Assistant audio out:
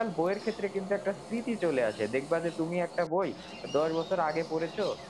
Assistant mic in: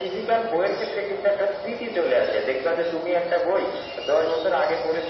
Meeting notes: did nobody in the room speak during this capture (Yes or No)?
Yes